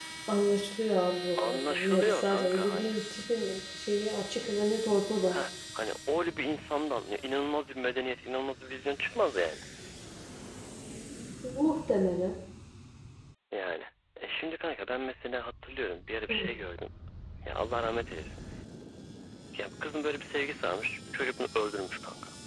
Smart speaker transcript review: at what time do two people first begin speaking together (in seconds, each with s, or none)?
1.4 s